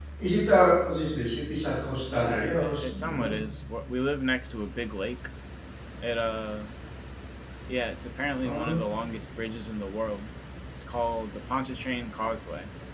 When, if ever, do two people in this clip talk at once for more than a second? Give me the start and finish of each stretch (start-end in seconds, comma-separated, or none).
2.1-3.3